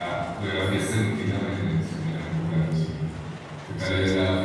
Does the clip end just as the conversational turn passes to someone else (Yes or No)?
No